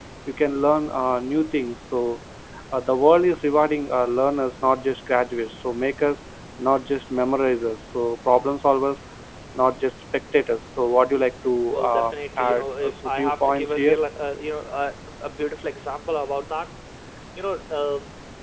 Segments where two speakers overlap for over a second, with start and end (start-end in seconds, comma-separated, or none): 11.9-14.0